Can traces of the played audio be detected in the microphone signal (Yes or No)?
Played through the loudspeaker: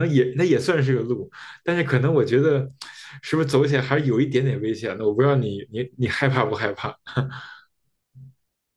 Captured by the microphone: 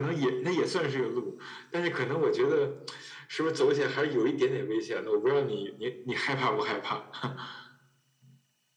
Yes